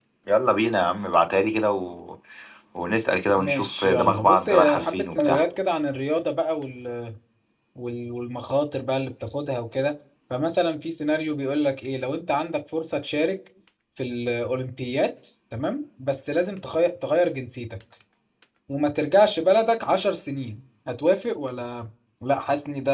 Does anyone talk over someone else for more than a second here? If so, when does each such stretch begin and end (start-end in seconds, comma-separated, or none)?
3.4-5.5